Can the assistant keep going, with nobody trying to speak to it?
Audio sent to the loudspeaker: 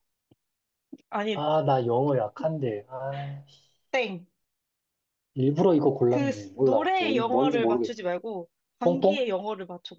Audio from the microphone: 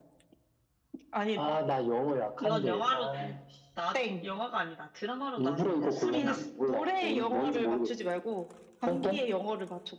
No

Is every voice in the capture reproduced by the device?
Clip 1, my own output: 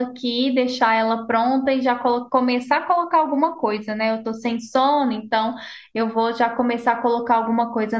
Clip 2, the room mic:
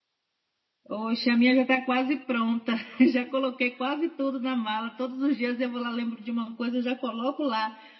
No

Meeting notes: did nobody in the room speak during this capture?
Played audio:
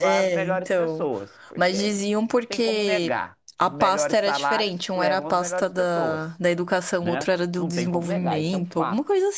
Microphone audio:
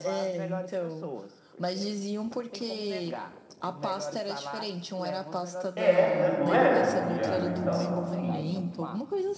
No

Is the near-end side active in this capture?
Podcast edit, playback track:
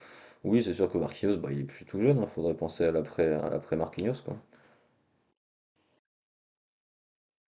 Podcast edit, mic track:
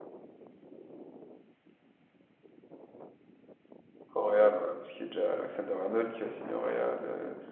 Yes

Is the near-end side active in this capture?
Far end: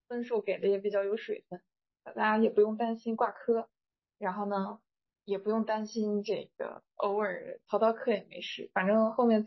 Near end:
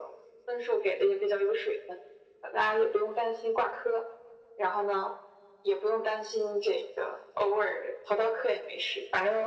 No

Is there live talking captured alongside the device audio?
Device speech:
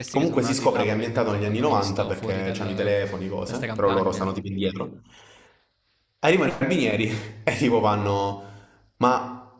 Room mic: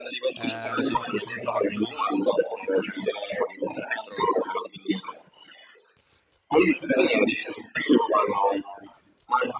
Yes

